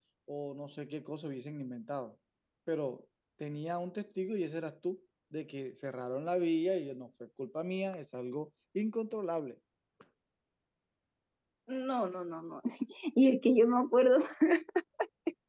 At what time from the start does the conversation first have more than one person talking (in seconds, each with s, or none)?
none